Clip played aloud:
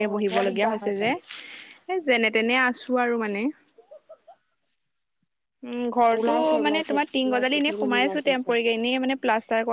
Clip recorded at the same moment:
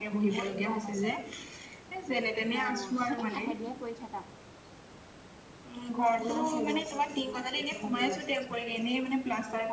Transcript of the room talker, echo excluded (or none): অঁ' এই লাহে ধিৰে কৰি থাকা।